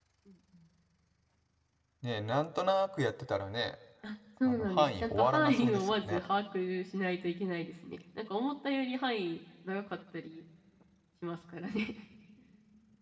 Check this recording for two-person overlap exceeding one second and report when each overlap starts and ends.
4.5-6.2

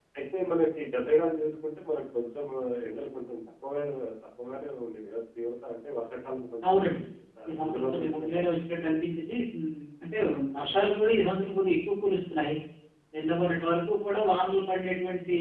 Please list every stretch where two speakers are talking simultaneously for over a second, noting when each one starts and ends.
7.5-9.0

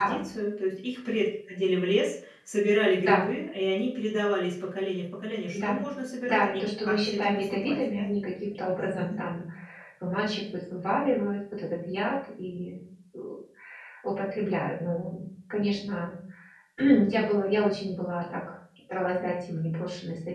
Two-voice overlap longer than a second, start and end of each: 6.2-8.1

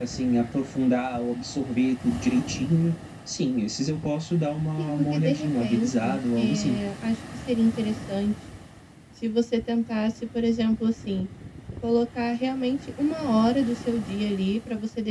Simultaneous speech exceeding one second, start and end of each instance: 4.8-6.8

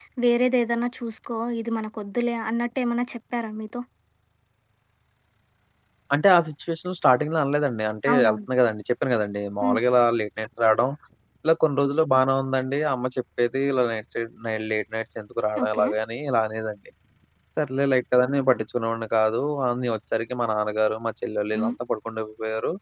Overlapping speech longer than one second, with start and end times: none

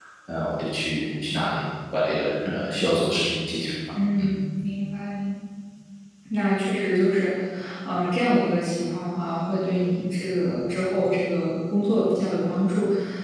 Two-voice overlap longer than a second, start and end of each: none

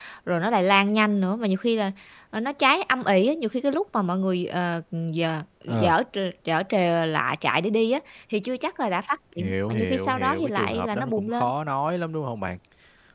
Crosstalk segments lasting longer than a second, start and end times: 9.4-11.5

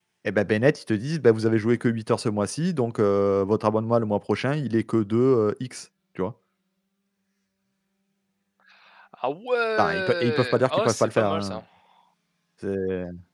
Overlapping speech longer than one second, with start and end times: 9.8-11.6

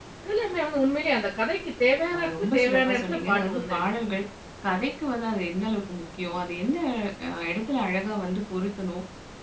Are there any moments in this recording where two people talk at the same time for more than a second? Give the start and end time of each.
2.1-3.9

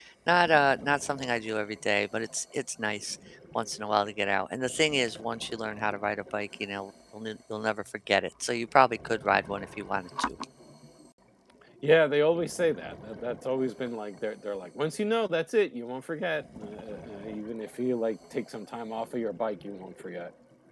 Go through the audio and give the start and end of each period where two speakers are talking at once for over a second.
none

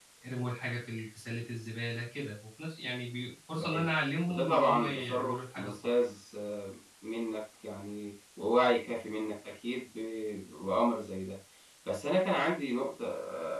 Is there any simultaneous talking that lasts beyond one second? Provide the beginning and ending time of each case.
4.3-5.9

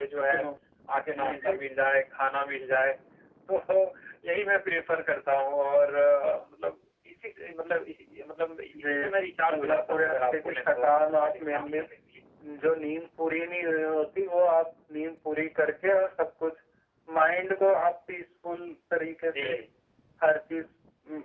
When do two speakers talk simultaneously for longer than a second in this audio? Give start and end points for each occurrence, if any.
9.6-11.8

